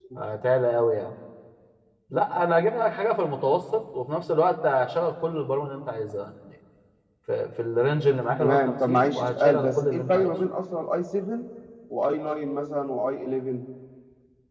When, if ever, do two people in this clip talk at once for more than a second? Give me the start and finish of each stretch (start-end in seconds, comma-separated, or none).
8.4-10.3